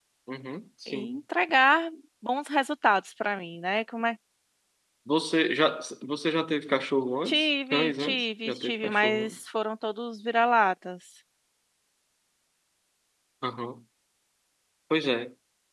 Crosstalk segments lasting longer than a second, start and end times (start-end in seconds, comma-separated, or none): 7.3-9.4